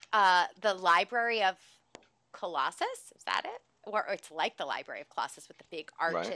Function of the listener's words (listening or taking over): listening